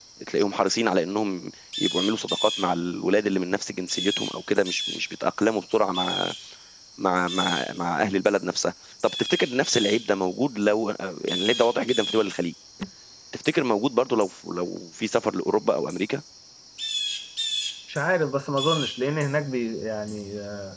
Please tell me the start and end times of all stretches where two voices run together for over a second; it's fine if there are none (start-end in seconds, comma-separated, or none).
none